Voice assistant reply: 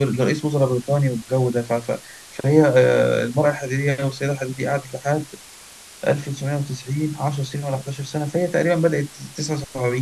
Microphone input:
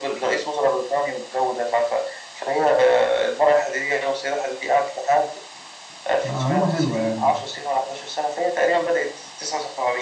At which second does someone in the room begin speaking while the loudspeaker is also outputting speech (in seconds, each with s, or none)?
6.2 s